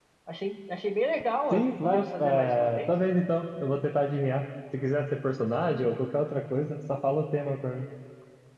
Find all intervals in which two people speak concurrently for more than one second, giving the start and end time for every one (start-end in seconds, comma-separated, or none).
1.5-2.9